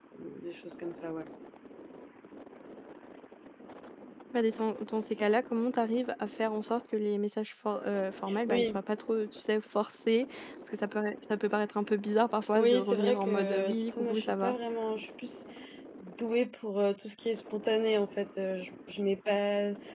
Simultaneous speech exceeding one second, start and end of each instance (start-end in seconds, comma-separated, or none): 12.5-14.5